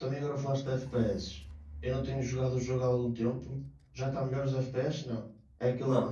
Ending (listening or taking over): listening